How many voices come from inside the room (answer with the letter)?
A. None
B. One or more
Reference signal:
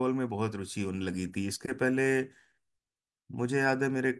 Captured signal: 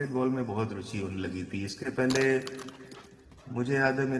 A